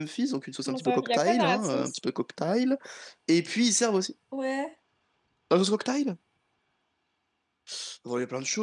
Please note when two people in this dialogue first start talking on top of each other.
0.7 s

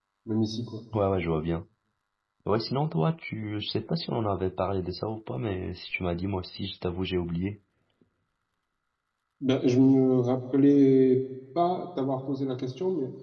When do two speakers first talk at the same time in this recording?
none

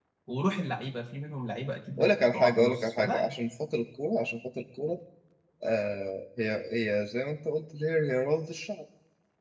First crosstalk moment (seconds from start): 2.0 s

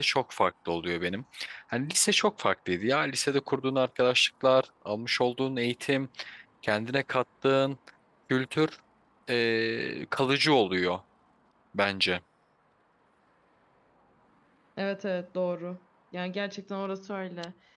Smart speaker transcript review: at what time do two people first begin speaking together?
none

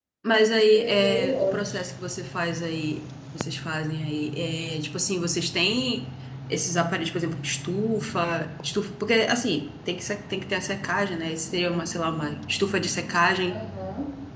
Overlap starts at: 0.5 s

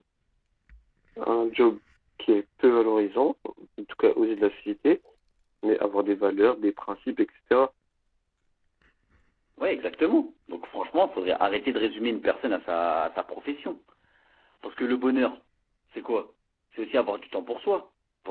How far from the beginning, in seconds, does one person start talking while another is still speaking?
none

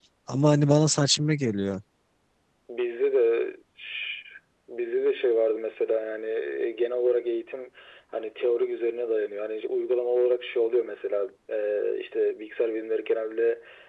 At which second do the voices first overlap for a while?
none

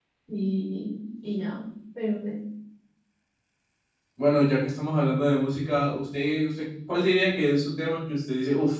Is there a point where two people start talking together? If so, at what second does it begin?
none

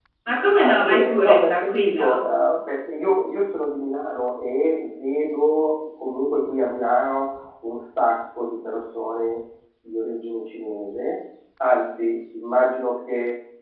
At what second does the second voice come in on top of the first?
0.6 s

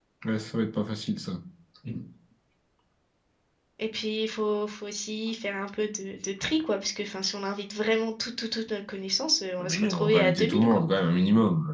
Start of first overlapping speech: 9.6 s

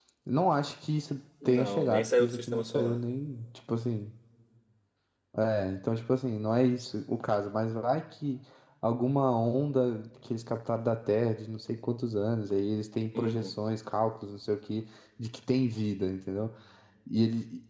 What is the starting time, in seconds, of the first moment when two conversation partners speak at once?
1.4 s

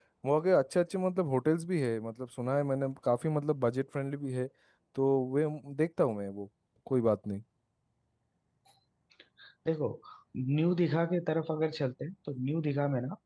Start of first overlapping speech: none

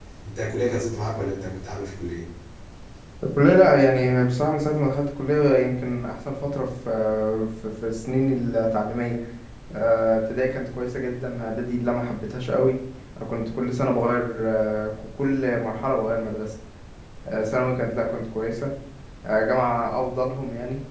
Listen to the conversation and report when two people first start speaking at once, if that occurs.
none

